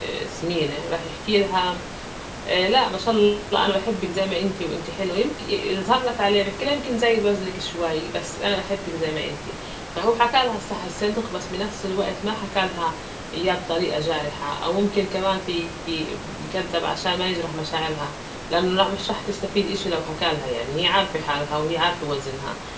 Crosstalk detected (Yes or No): No